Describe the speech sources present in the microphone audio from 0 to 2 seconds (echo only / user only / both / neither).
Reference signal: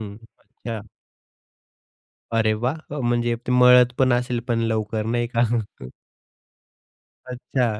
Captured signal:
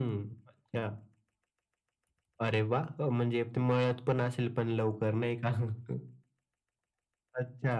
echo only